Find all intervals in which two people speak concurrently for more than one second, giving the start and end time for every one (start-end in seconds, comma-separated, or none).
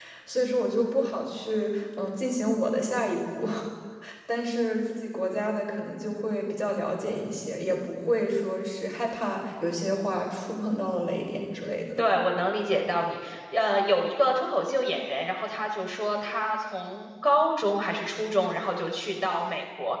none